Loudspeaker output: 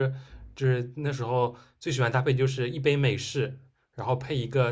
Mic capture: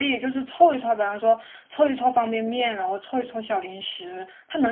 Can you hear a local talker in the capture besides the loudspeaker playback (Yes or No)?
Yes